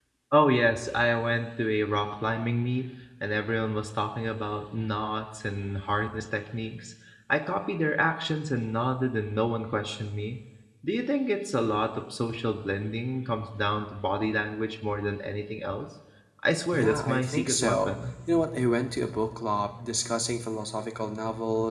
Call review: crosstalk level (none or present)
present